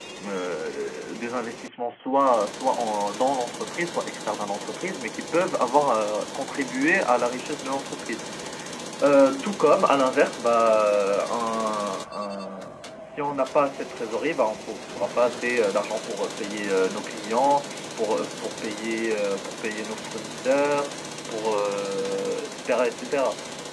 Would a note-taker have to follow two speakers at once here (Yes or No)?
No